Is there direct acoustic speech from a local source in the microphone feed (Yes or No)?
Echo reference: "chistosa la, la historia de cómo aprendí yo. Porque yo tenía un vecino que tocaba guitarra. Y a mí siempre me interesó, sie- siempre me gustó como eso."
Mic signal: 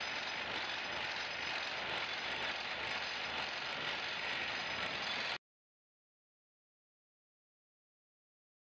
No